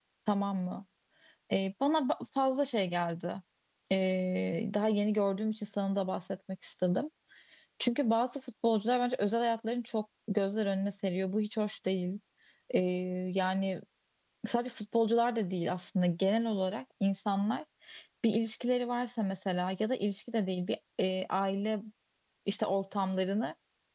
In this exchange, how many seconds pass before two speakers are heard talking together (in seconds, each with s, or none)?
none